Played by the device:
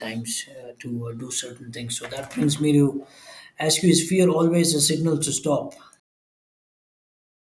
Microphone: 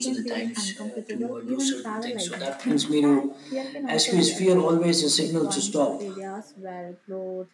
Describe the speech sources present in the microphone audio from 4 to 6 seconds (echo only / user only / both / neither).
both